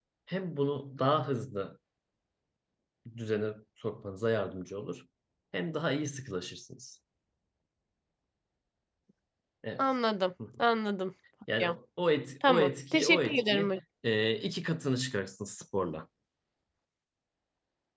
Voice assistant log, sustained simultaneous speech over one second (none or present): present